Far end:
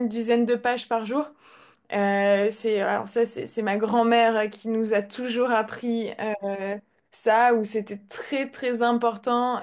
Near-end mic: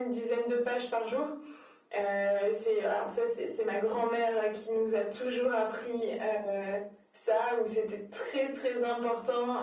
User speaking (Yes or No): No